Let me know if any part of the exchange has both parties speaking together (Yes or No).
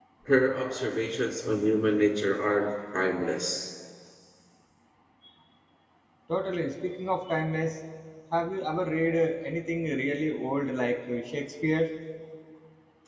No